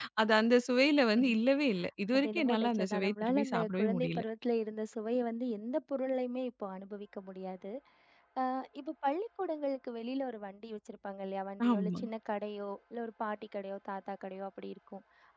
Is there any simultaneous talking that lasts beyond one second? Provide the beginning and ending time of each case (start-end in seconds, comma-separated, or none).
2.1-4.2